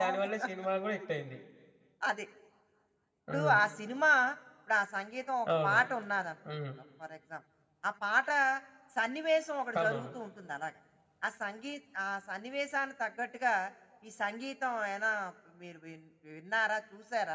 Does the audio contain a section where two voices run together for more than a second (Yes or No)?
No